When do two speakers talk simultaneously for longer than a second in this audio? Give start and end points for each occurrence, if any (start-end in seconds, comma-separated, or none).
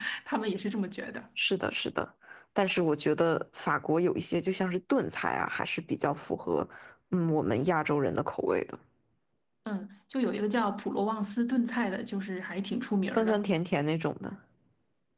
none